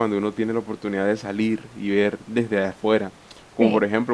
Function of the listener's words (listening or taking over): listening